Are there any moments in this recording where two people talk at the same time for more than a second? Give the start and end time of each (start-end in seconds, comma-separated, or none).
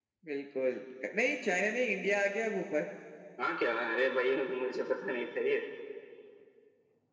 none